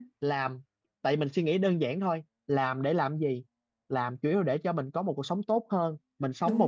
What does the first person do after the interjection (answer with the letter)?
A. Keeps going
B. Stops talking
A